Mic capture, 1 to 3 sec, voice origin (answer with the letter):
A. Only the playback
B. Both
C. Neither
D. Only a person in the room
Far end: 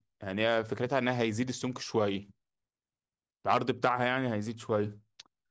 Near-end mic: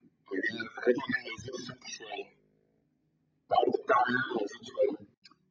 A